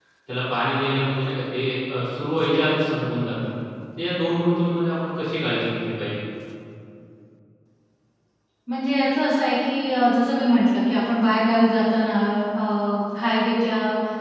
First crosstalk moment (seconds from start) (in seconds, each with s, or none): none